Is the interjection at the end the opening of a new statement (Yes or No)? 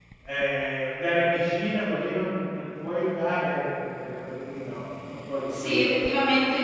Yes